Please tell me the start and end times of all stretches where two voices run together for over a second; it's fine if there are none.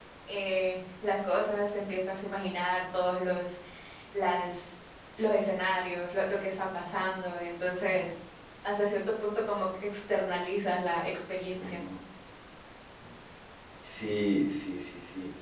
none

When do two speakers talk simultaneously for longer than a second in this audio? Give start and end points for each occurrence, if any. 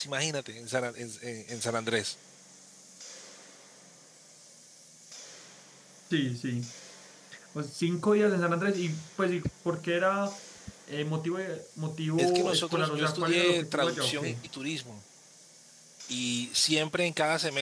12.2-14.3

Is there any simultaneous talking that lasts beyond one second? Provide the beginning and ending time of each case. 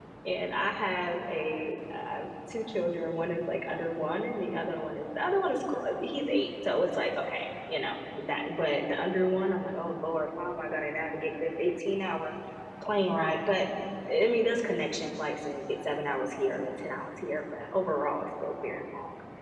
none

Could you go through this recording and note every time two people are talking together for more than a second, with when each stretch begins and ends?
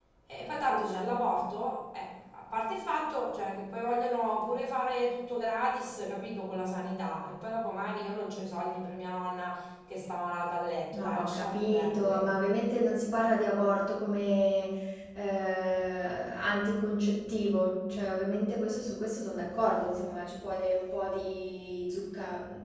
10.9-12.3

